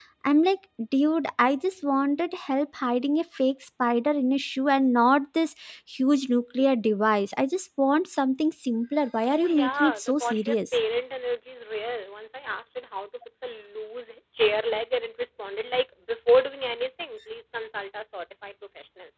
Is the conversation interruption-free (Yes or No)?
No